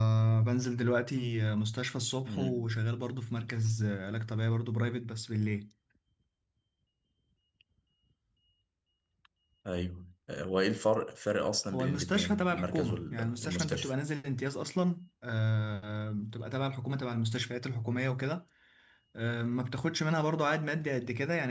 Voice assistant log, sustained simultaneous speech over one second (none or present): present